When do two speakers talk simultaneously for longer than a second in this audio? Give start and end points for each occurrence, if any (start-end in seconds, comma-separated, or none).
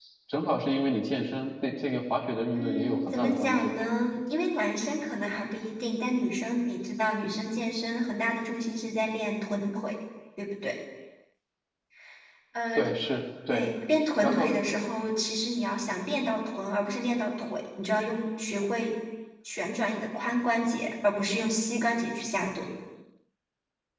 2.6-3.8